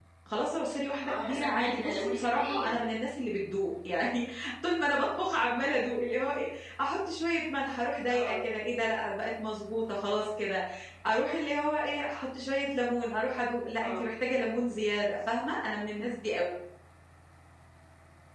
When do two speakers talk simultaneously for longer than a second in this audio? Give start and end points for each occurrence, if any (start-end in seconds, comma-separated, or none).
1.1-2.8